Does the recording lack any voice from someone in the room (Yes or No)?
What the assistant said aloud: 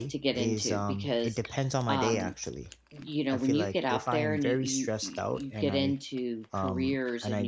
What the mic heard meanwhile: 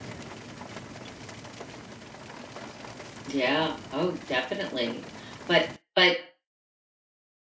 No